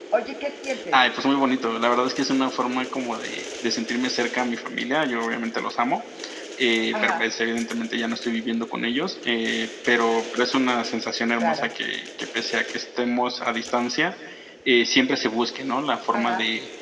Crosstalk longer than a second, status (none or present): none